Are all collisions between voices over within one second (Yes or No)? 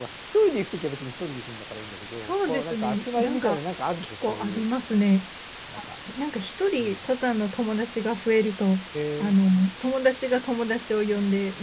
No